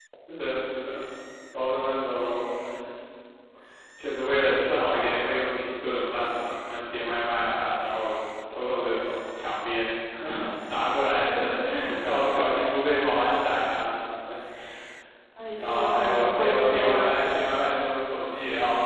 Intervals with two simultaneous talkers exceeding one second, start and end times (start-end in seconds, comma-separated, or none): 15.6-17.1